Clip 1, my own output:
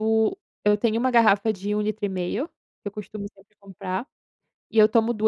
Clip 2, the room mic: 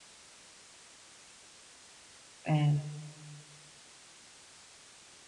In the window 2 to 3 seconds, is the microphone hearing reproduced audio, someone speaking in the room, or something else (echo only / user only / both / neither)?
user only